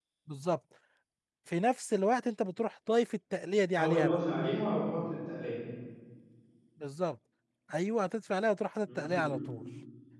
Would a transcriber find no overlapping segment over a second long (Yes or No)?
Yes